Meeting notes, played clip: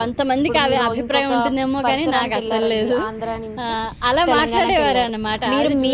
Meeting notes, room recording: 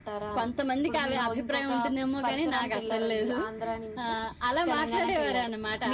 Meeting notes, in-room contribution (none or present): none